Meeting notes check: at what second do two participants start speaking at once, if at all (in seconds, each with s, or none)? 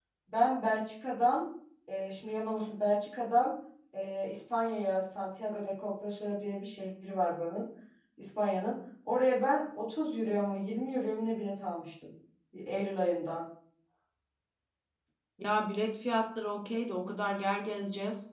none